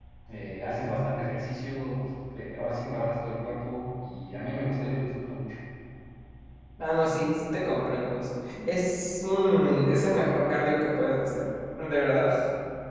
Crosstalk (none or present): none